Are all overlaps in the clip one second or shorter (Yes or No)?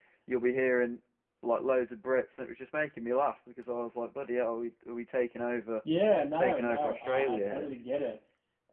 No